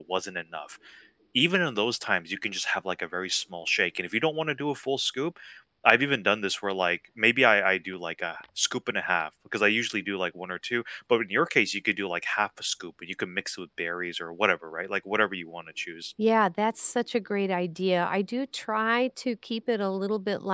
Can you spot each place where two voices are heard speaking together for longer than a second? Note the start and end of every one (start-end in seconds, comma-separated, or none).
none